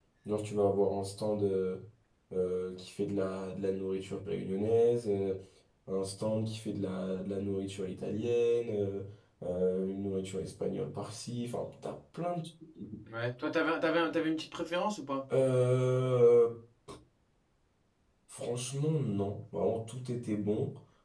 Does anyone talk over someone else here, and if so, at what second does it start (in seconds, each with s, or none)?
none